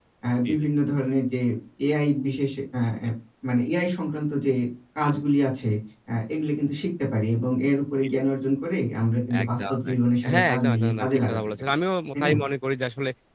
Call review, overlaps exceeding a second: present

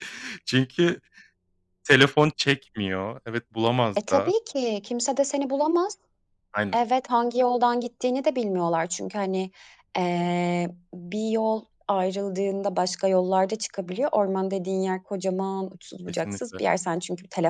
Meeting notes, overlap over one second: none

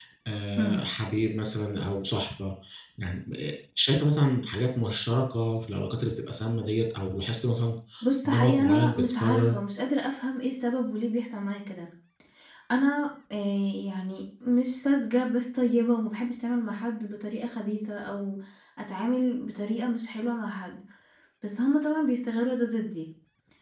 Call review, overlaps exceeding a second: present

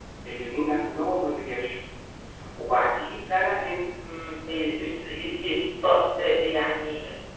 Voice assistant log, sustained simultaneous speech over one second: none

